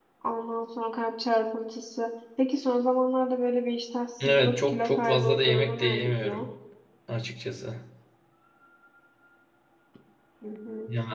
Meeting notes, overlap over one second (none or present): present